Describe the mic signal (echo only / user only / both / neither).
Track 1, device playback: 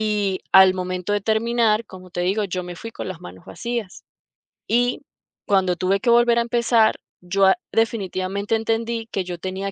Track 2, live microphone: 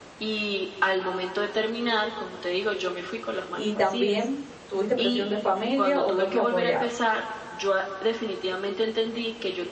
both